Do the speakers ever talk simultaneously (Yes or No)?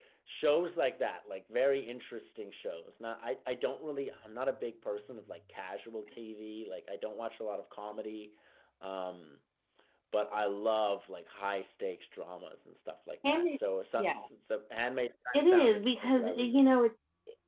Yes